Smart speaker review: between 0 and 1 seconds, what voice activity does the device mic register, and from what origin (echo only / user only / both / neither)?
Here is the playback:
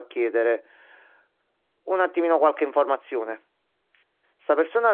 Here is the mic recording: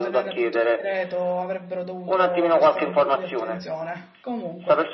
both